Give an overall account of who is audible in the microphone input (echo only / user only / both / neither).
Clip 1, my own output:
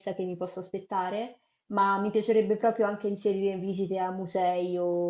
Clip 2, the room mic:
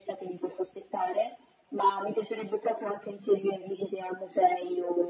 echo only